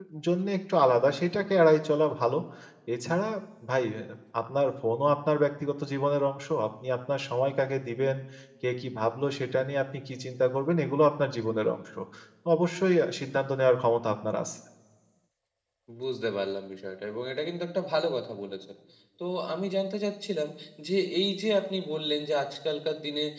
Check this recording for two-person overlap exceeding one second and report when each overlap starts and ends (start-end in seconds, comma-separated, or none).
none